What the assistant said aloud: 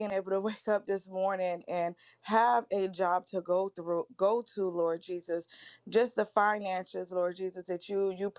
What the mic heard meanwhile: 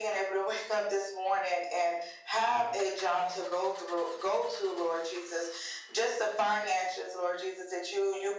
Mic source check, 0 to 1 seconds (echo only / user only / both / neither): echo only